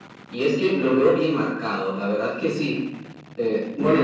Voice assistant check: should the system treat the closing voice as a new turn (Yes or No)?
Yes